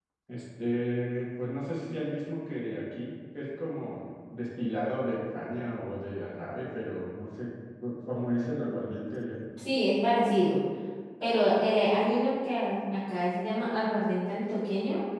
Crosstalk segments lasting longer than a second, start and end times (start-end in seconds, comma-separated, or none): none